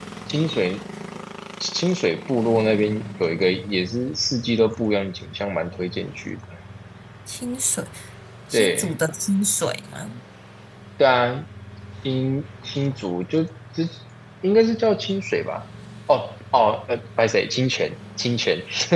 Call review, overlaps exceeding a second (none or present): none